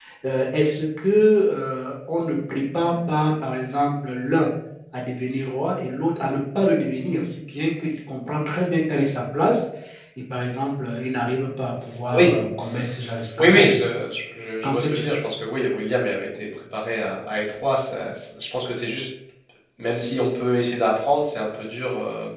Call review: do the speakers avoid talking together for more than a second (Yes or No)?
Yes